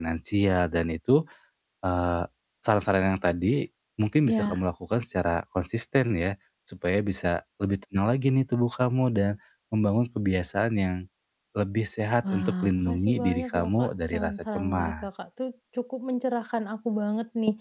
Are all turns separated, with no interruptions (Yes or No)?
No